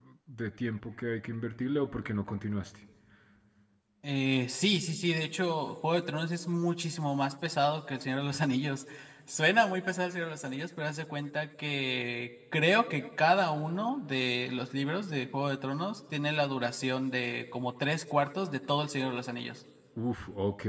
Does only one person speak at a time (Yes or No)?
Yes